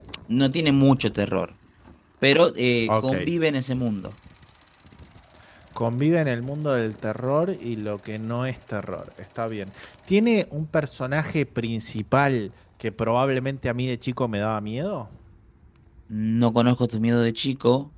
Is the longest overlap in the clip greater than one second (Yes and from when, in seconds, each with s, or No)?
No